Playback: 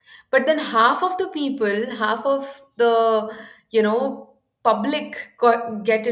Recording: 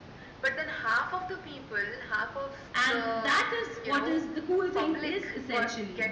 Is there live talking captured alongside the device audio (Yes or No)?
Yes